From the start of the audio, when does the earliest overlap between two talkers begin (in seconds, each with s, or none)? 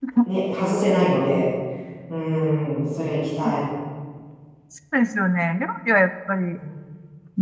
none